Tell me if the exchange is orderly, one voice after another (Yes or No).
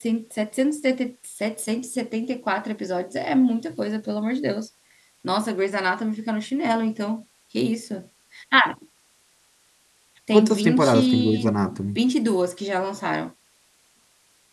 No